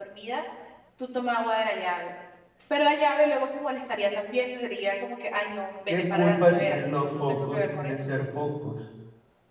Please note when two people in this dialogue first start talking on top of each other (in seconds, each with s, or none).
5.9 s